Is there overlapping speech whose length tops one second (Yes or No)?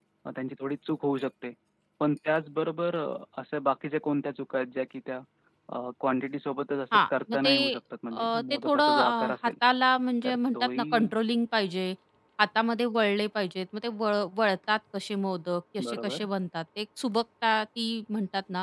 Yes